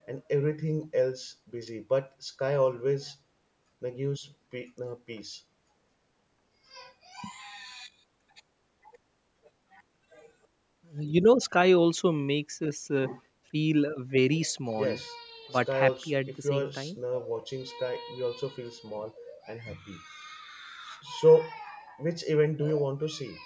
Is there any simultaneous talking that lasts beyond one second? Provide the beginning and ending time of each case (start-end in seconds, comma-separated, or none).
15.7-16.9